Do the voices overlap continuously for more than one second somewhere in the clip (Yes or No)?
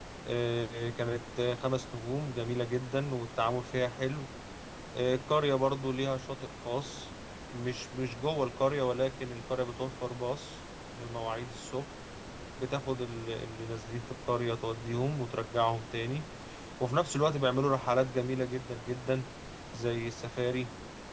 No